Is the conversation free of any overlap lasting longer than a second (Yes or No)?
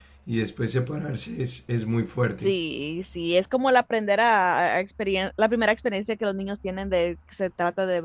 Yes